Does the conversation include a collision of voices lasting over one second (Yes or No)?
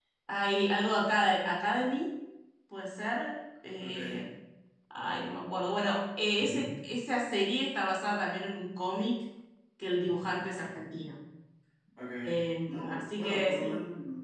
Yes